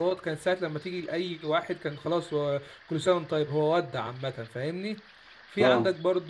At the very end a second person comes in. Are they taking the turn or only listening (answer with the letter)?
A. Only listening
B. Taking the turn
A